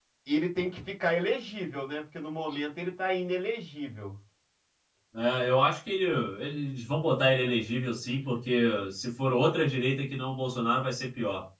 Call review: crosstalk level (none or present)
none